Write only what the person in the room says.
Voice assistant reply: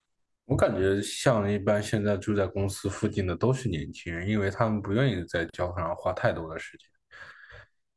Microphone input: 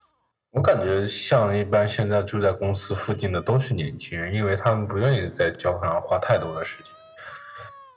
none

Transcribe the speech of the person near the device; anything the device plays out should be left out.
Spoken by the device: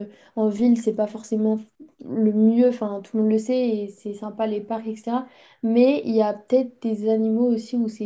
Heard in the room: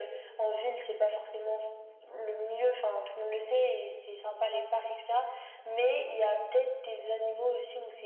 none

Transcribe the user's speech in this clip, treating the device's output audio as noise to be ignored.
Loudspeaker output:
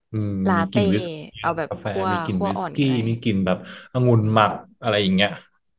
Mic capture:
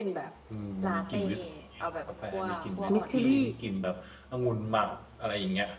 เม็ดเชอรี่

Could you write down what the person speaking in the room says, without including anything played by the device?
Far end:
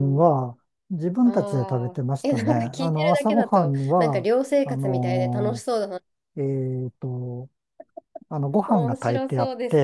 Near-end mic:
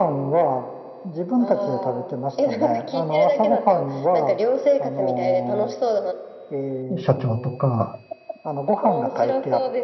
社長とか、

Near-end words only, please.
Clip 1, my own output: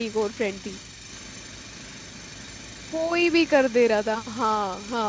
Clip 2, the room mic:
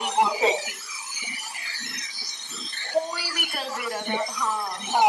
none

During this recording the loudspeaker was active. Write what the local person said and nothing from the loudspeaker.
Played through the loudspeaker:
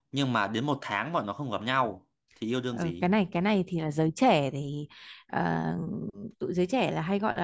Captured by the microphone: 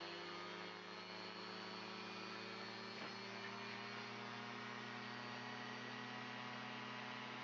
none

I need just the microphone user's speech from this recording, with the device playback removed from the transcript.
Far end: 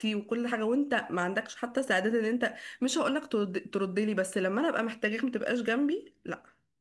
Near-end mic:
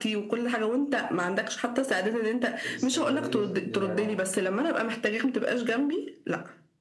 والاستغلالية في- للعلاقة

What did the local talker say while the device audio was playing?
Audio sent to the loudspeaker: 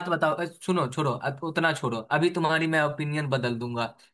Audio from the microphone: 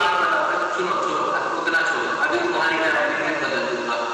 क्या बस वाला है या

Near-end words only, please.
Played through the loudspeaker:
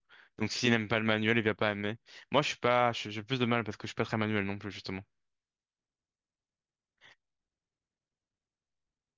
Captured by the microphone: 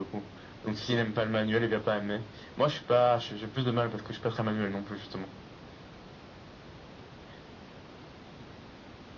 none

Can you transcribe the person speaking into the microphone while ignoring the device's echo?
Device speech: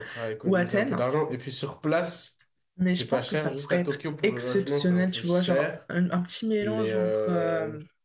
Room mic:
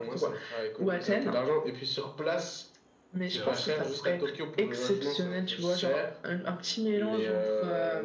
c'est vrai.

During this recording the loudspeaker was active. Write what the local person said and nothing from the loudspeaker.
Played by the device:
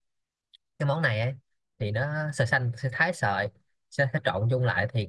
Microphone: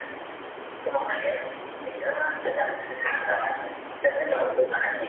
none

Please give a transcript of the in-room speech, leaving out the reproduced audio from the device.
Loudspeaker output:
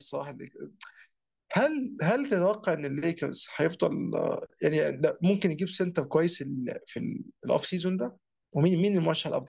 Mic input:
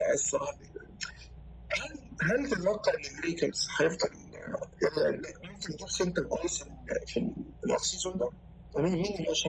none

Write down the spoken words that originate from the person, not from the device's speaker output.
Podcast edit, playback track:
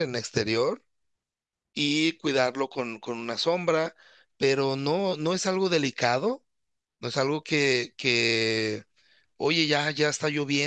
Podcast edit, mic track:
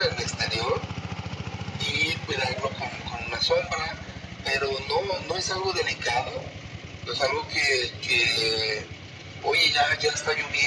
none

